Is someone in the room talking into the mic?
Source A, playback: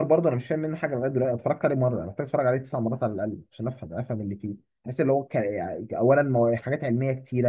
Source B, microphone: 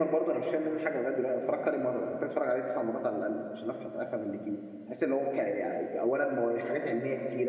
No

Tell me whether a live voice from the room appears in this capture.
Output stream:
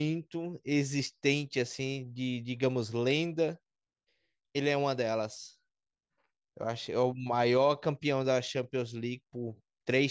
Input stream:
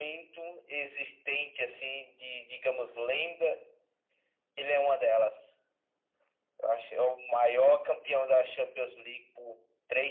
No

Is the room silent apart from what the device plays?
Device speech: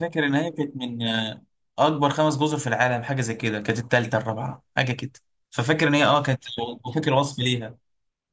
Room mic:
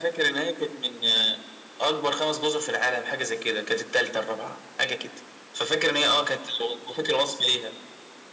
Yes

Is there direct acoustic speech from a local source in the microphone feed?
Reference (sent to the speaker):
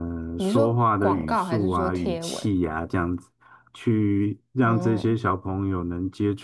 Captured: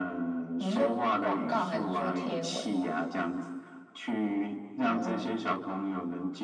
No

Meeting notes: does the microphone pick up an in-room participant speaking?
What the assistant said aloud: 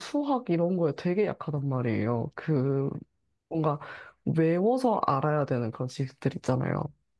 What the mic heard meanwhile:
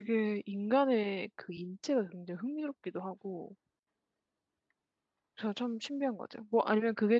Yes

